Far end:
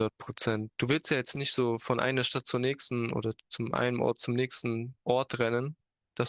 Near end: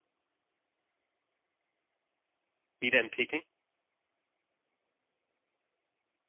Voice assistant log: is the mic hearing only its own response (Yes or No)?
No